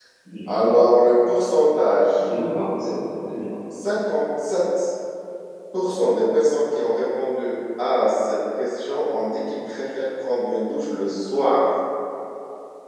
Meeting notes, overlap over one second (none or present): none